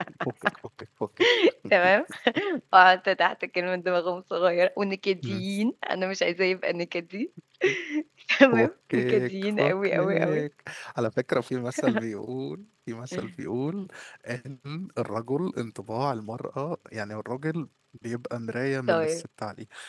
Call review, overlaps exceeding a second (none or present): present